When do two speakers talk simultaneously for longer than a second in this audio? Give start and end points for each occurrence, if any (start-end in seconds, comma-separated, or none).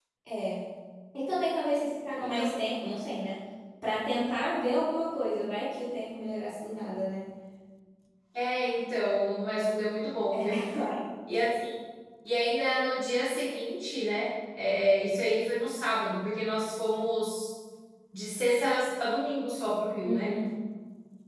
none